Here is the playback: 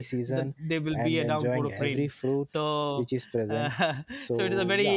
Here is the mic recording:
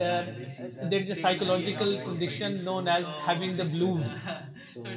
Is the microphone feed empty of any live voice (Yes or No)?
No